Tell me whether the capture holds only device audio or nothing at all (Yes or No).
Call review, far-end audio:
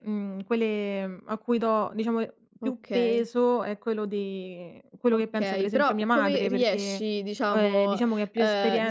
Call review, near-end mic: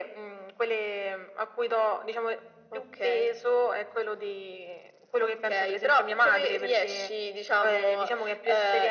Yes